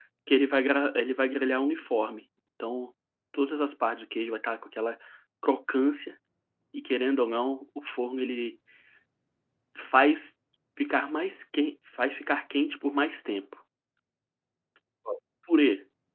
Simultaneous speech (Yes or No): No